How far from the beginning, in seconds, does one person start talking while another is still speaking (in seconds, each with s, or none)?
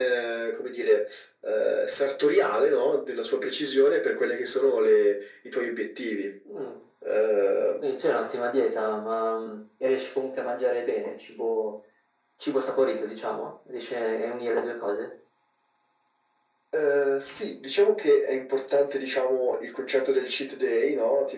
none